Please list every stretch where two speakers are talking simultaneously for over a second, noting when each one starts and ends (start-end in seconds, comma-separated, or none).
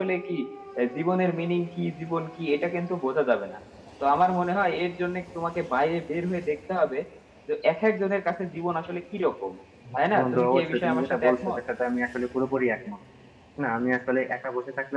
10.2-11.6